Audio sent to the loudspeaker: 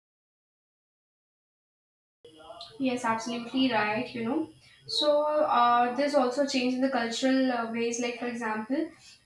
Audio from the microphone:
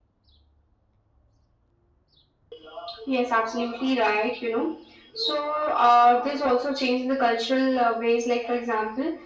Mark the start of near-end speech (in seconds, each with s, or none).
none